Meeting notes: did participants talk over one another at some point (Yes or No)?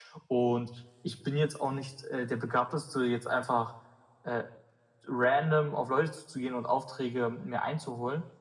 No